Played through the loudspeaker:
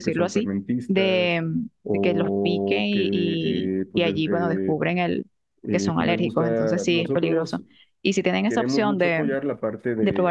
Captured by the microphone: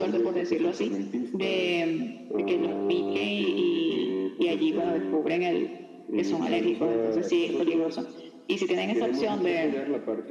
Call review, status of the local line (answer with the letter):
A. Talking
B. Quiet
B